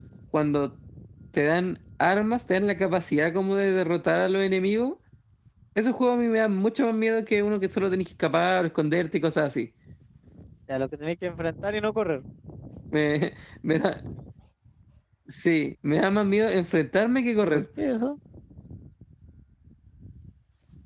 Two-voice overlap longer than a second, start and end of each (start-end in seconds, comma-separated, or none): none